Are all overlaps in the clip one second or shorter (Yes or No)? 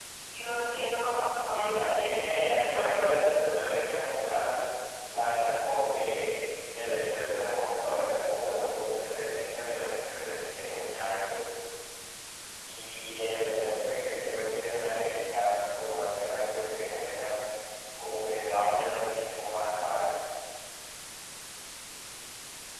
No